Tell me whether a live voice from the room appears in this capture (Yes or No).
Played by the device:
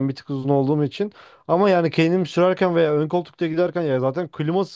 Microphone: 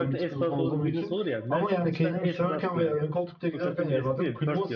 Yes